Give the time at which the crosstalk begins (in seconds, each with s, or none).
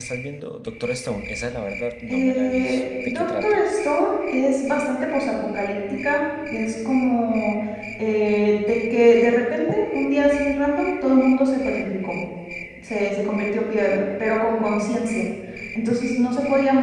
2.1 s